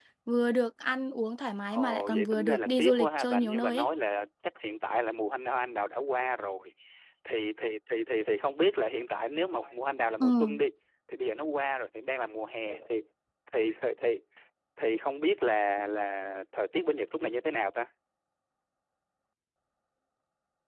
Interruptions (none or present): present